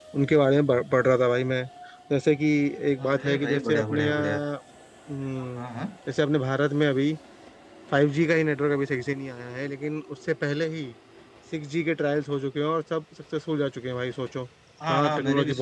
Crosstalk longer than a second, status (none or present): present